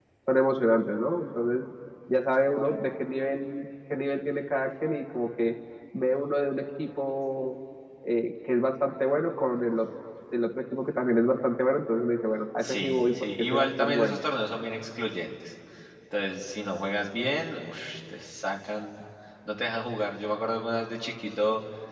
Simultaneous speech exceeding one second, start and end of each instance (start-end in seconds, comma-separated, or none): 12.6-14.2